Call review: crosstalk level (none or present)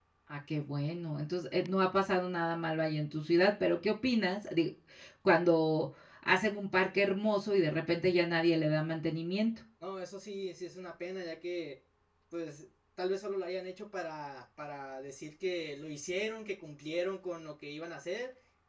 none